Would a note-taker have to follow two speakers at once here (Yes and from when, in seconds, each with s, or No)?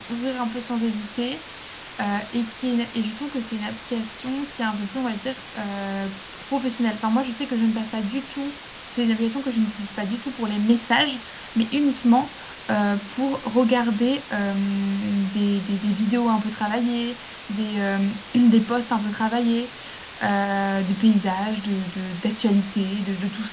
No